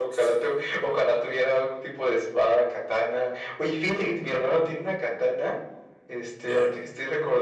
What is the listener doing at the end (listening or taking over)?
listening